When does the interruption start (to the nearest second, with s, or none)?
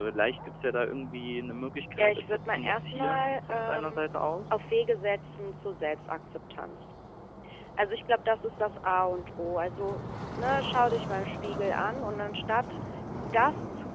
2 s